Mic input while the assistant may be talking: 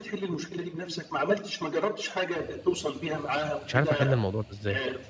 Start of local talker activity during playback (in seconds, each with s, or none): 3.7 s